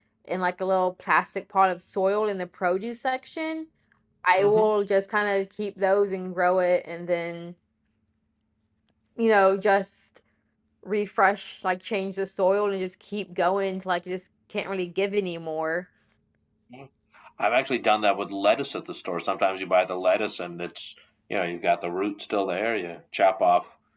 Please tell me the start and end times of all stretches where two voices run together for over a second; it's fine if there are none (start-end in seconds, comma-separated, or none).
none